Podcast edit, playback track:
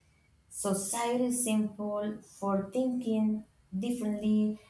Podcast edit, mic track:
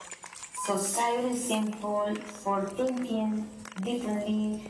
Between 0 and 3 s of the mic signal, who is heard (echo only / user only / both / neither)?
echo only